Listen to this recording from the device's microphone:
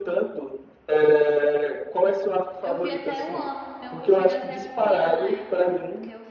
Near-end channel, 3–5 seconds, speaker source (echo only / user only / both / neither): both